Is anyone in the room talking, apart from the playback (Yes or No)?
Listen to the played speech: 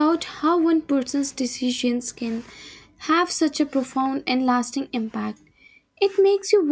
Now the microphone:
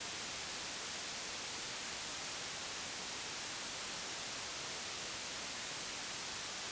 No